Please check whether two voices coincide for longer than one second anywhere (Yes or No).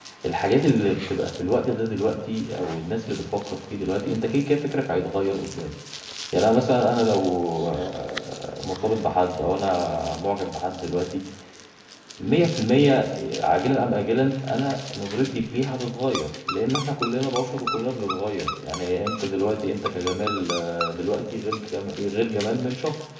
No